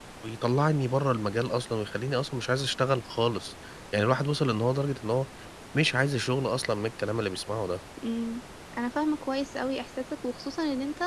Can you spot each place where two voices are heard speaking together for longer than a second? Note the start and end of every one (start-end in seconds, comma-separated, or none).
none